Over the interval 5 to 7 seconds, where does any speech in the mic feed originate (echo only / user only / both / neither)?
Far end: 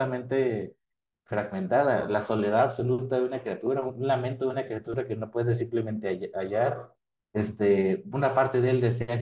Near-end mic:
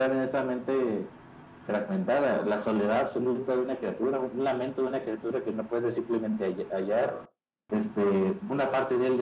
echo only